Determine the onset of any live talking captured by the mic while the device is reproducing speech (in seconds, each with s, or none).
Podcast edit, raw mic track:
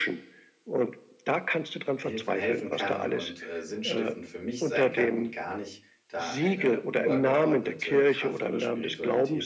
2.0 s